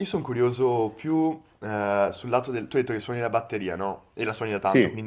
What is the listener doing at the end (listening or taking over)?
listening